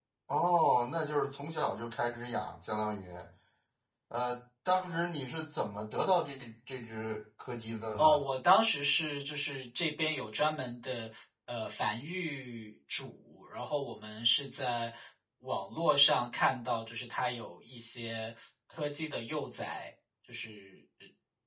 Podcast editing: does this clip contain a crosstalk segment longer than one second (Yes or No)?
No